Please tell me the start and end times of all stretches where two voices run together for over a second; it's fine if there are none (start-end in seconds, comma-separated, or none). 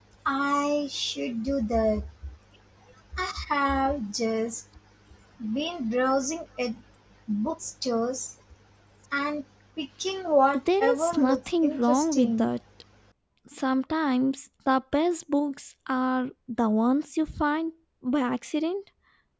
10.8-12.5